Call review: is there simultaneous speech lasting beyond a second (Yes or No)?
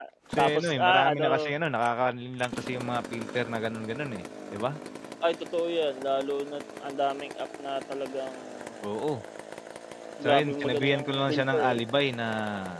Yes